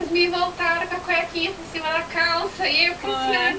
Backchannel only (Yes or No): Yes